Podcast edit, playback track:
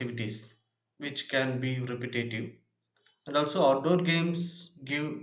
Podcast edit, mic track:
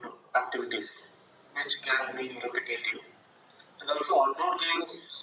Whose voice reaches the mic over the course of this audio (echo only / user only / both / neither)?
echo only